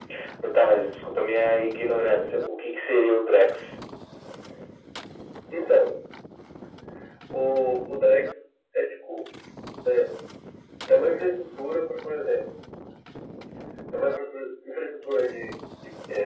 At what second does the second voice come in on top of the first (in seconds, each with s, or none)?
none